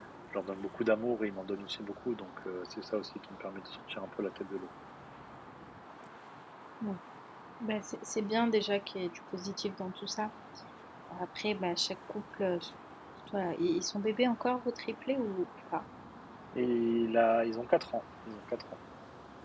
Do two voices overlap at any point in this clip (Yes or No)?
No